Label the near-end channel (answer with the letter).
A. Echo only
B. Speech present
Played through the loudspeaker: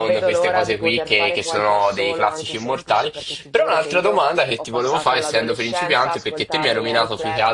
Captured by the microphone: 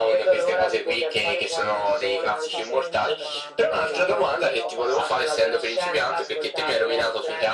B